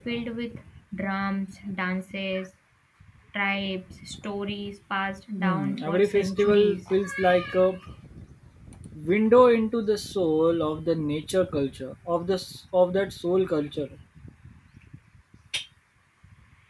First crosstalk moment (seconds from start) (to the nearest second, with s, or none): 5 s